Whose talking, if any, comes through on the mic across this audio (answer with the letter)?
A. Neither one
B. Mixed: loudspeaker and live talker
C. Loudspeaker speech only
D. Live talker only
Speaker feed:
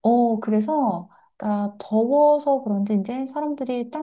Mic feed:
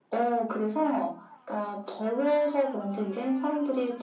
C